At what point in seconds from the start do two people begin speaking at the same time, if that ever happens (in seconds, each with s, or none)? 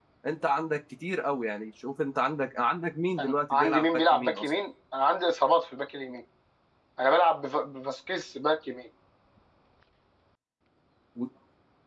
3.2 s